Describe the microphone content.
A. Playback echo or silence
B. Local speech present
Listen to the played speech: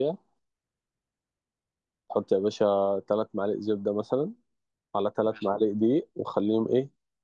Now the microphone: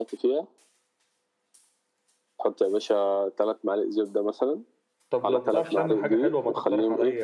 B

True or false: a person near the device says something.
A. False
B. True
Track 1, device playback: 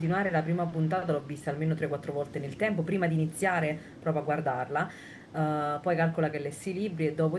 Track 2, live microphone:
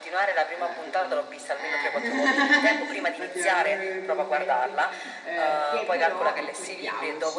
B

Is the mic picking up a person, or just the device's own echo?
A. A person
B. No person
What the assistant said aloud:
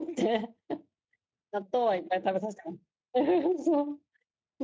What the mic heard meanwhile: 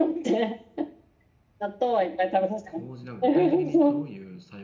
A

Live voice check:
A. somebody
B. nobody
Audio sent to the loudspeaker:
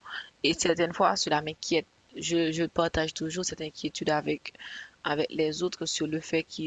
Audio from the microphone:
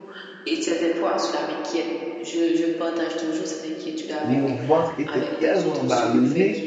A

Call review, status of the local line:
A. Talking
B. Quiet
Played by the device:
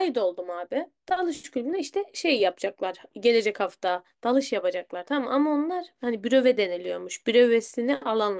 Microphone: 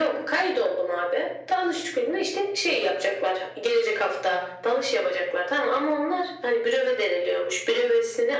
B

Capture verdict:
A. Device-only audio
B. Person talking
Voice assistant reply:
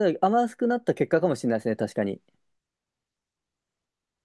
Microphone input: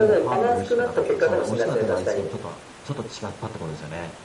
B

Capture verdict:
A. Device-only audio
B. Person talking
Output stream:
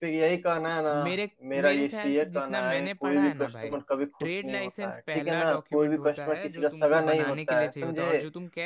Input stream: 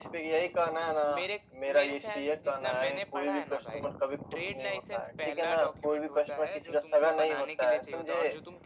A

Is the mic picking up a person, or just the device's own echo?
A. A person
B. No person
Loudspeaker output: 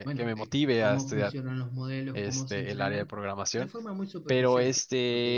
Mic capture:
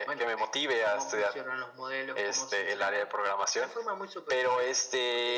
B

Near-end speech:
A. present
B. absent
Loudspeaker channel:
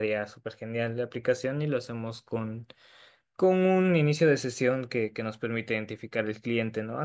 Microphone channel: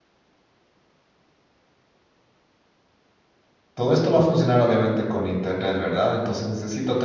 A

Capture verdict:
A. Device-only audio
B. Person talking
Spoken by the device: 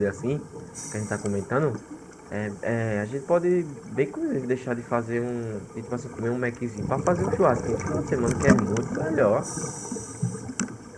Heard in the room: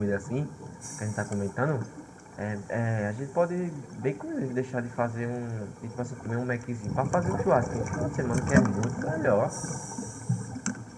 A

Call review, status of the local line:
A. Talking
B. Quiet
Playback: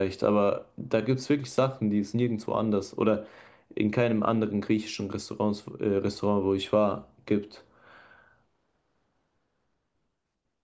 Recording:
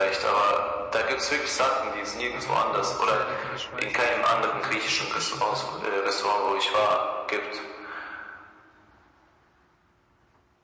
A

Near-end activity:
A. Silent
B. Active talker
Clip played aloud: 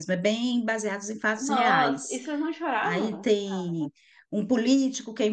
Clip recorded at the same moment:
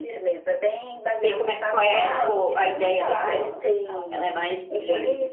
B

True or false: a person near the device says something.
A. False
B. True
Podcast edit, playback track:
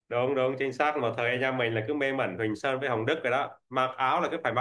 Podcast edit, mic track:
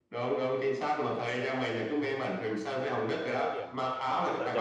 B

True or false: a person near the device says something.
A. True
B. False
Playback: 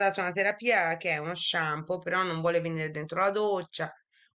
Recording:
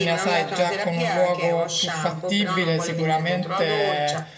A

